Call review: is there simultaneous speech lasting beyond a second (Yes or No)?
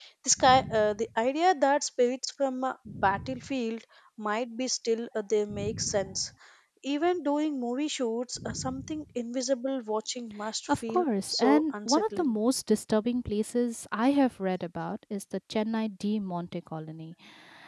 Yes